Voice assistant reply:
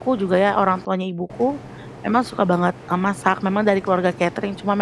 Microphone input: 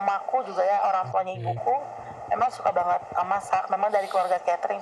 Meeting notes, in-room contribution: present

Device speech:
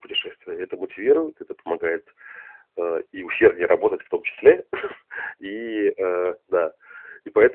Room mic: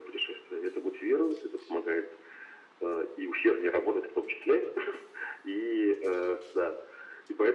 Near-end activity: none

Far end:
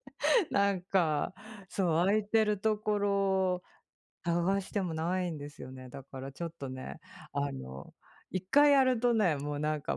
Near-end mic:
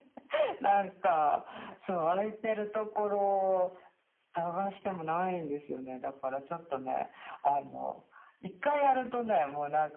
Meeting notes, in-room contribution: none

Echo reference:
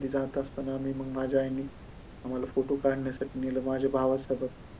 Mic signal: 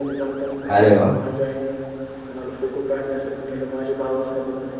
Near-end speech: present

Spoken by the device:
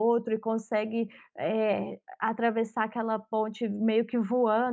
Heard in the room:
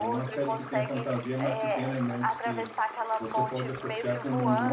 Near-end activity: present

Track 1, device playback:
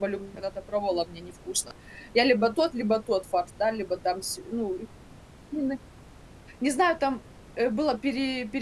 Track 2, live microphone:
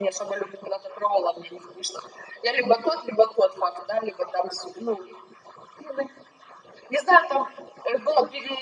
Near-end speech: none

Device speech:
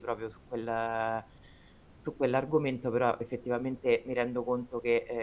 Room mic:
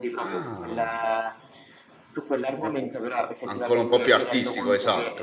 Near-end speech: present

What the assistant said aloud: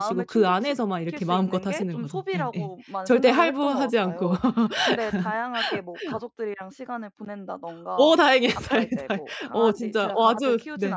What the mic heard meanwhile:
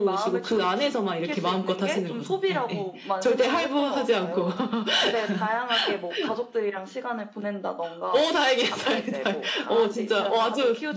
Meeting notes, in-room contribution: none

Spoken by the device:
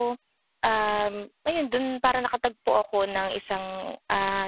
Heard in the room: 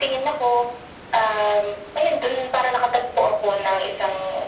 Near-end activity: none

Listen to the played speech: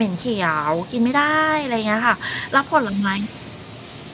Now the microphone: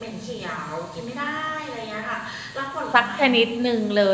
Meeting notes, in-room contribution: present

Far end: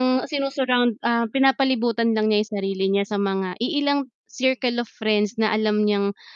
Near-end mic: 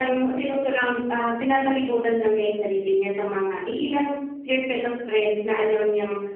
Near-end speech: none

